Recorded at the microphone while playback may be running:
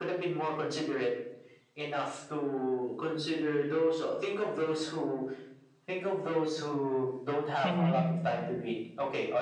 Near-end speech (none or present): present